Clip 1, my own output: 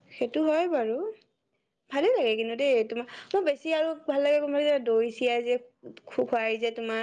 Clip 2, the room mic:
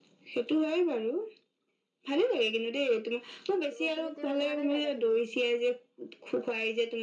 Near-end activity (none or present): present